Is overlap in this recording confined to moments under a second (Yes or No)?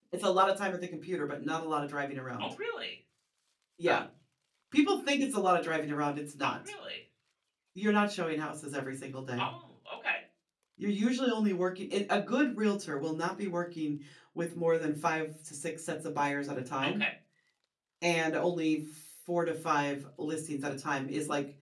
Yes